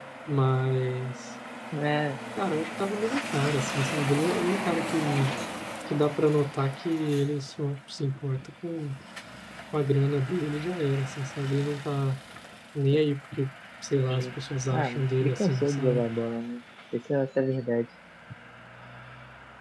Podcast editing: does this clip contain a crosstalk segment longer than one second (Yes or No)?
Yes